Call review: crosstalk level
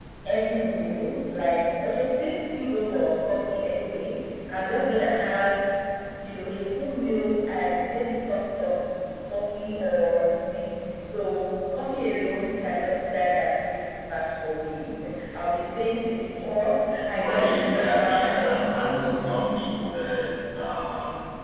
present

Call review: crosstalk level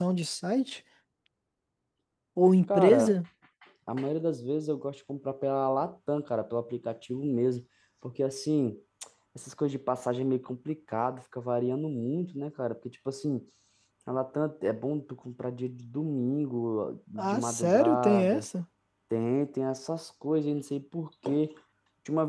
present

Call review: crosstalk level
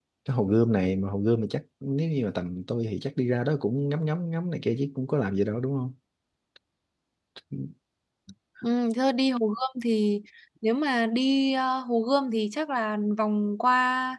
none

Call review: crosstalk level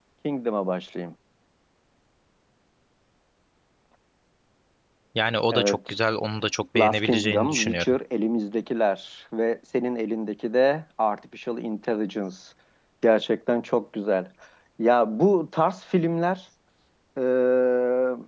present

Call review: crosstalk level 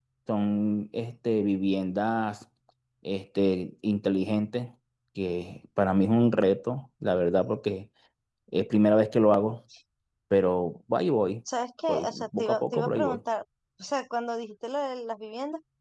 present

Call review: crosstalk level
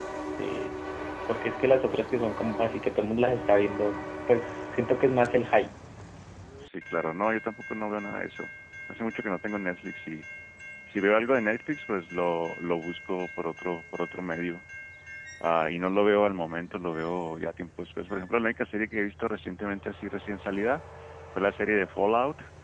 none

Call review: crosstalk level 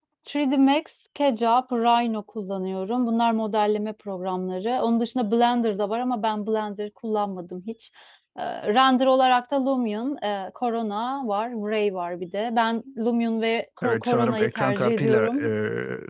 present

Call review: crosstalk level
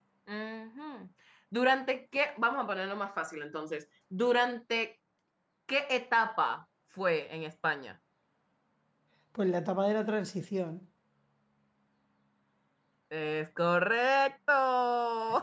none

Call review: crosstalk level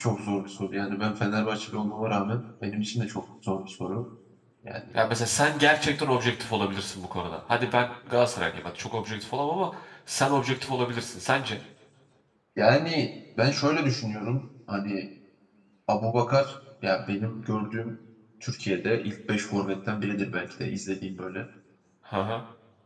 none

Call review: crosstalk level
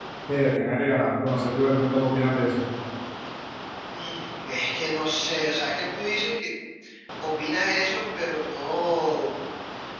none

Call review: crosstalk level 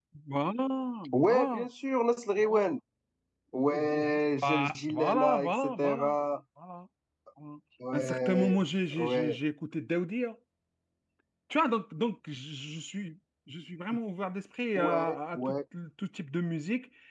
present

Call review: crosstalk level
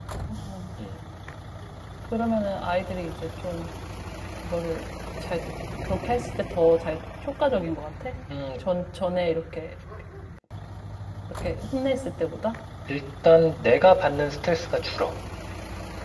none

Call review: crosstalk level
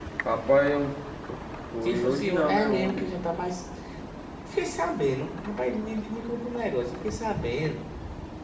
present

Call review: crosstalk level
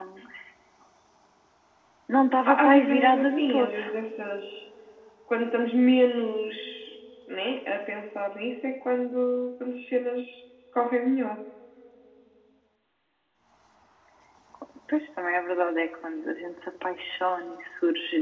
present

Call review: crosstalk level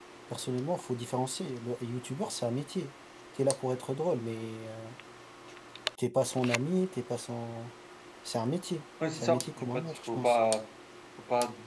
present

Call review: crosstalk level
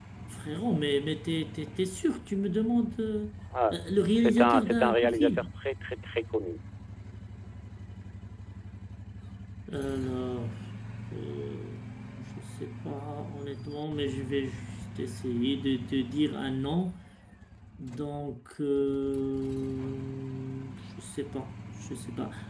present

